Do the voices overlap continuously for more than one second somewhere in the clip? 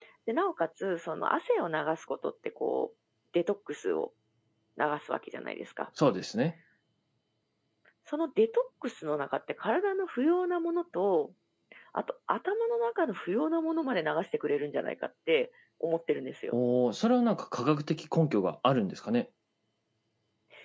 No

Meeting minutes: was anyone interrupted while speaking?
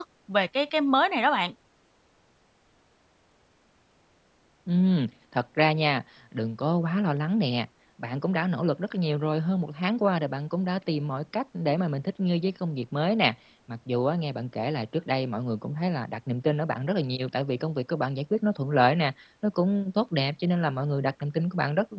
No

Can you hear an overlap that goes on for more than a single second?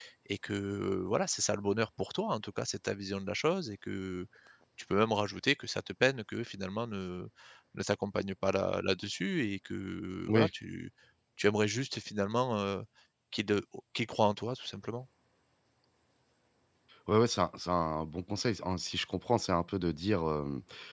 No

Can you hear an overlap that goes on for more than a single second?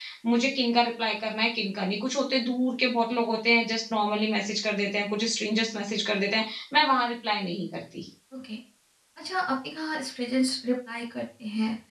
No

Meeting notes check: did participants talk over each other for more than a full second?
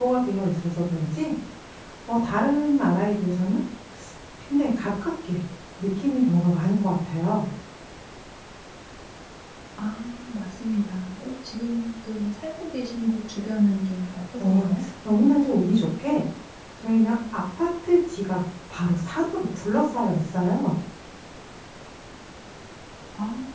No

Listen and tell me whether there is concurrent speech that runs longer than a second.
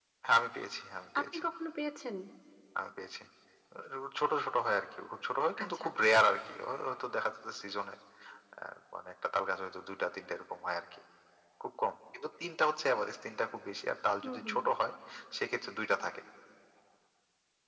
No

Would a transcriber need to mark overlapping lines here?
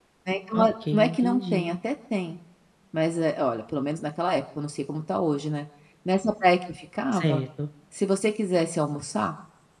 Yes, from 0.6 s

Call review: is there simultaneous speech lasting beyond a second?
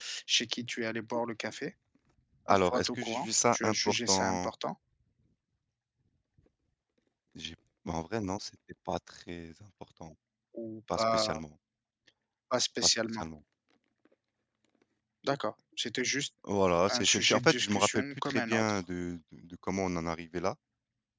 Yes, from 2.5 s

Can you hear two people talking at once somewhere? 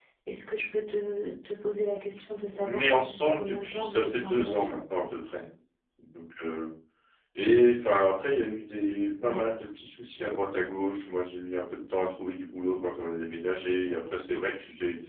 Yes, from 2.5 s

